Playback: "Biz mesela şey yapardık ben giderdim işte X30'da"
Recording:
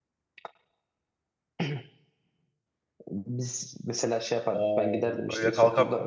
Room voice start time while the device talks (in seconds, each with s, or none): 4.5 s